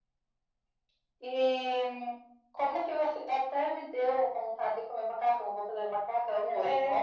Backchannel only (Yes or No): No